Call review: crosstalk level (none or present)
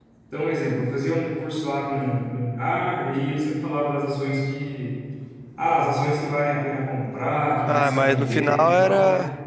present